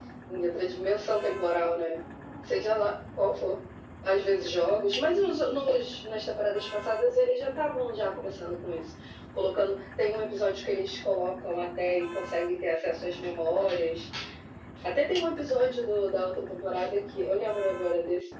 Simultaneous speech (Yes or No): No